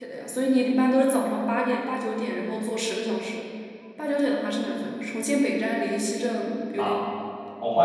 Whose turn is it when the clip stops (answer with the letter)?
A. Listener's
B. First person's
A